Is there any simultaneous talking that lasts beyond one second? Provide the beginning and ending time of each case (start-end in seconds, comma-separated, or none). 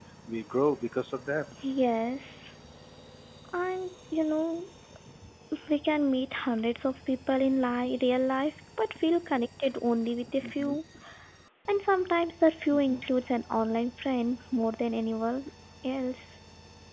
none